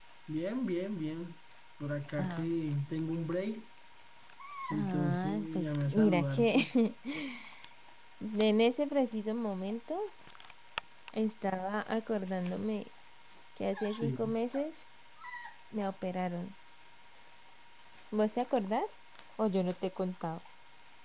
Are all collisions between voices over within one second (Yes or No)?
No